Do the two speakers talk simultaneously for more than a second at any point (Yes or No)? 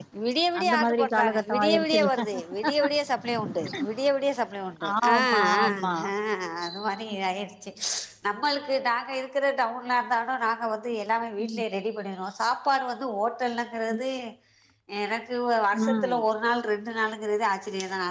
Yes